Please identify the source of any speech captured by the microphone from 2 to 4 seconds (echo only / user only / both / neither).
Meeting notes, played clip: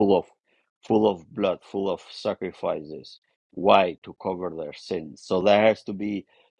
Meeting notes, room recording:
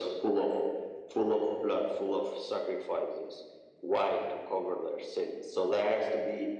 echo only